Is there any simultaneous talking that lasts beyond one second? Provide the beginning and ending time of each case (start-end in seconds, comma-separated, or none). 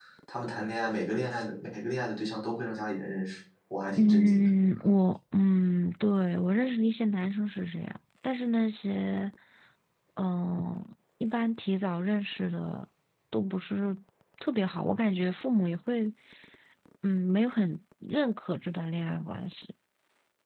none